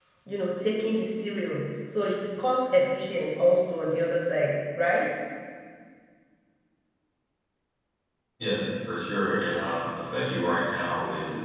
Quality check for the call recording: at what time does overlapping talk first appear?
none

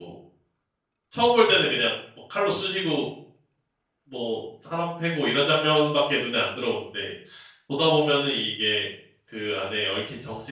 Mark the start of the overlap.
none

